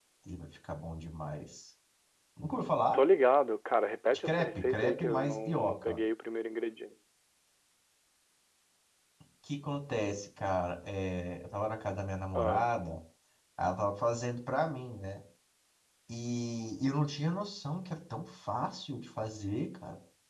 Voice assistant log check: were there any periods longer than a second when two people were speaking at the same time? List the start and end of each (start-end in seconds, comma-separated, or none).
4.2-6.0